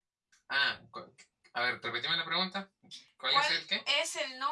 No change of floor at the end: No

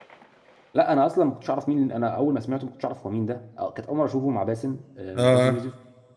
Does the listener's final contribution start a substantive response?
No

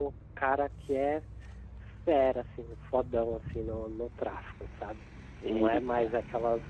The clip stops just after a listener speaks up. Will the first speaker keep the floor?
Yes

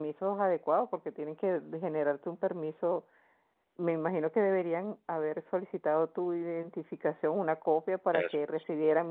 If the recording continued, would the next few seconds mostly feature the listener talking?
No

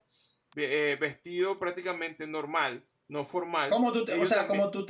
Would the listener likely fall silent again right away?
No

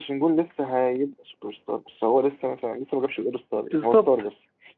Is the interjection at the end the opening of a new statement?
Yes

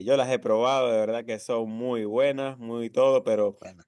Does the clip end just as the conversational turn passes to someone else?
No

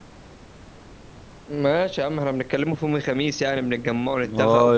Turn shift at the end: Yes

